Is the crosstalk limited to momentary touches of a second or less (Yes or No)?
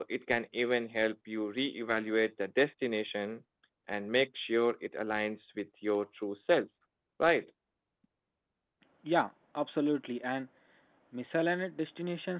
Yes